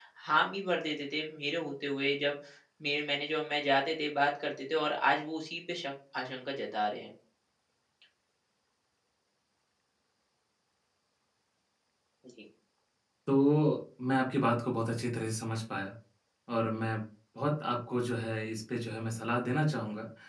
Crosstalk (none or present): none